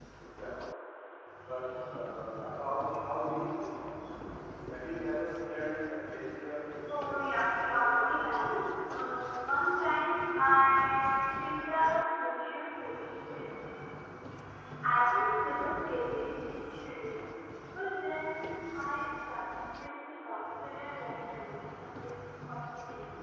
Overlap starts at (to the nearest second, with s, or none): 7 s